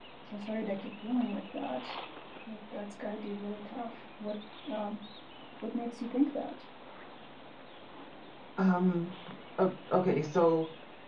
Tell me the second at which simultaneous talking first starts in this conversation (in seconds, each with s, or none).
none